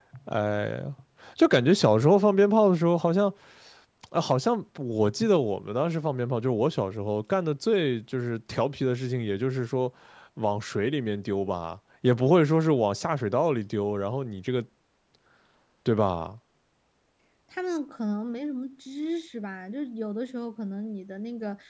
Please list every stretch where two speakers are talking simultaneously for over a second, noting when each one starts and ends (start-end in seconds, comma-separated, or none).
none